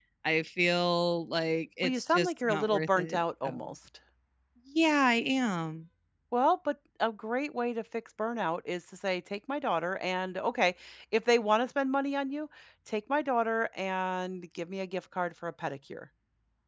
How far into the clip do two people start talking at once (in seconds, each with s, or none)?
1.8 s